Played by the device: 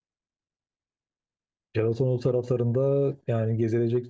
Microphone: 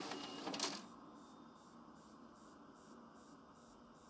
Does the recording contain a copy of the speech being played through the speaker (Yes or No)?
No